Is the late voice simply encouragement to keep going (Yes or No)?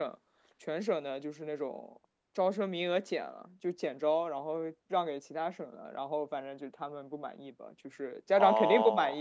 No